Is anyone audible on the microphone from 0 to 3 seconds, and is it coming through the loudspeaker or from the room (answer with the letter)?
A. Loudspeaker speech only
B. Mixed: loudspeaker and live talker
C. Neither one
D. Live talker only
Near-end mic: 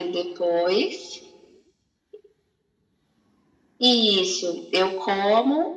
A